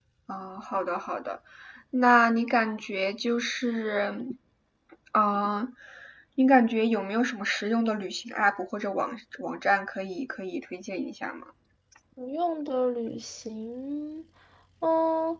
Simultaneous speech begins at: none

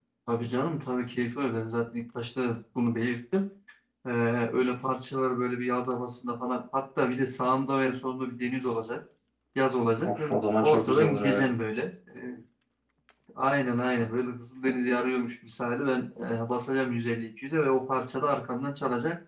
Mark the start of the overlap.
10.0 s

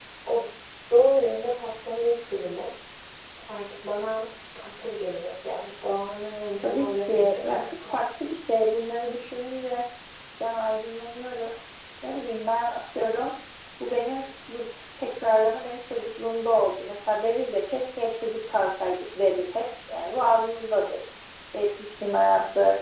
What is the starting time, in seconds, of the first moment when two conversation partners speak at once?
6.6 s

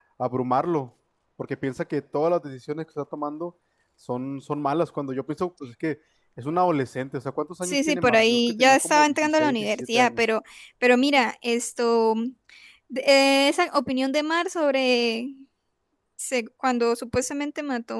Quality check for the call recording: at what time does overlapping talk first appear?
7.6 s

